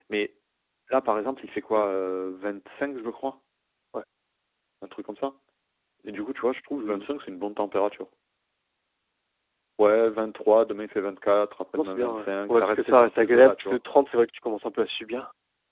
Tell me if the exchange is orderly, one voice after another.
No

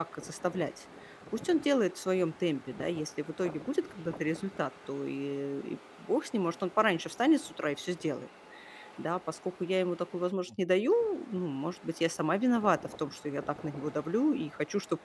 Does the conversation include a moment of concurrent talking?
No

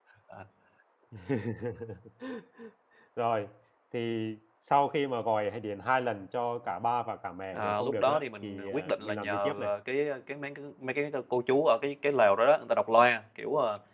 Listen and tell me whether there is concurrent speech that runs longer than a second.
Yes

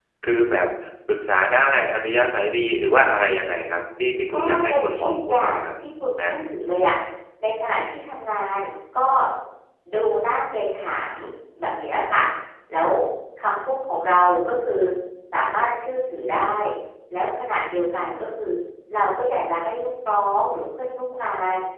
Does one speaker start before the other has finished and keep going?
Yes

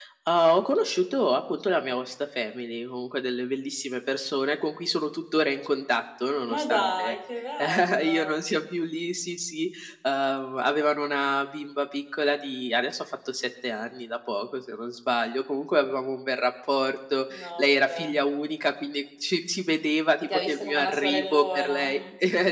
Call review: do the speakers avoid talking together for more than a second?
No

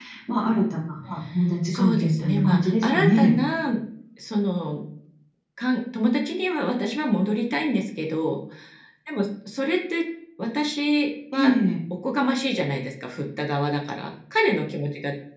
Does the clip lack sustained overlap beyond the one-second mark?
No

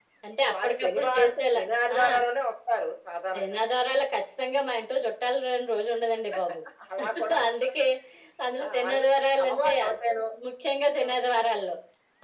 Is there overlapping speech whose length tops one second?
Yes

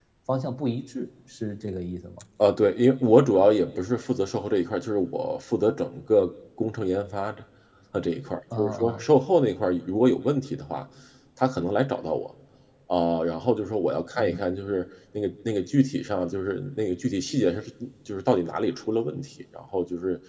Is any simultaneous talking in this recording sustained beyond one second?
No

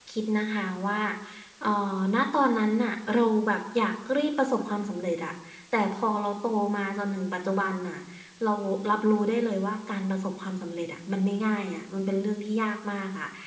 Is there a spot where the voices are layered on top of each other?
No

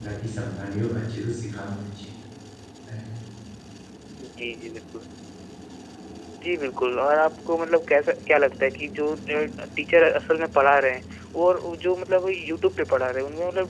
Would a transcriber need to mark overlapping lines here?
No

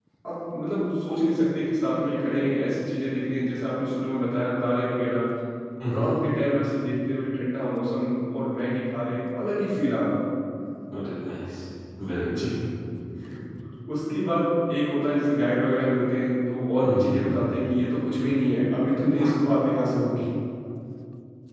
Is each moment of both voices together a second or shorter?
Yes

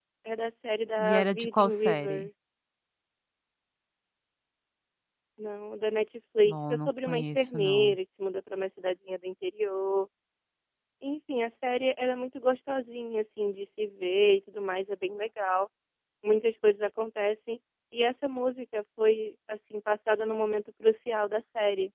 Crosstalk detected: Yes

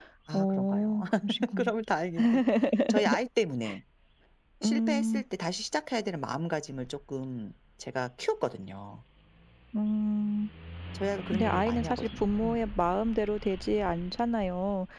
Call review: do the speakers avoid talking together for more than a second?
No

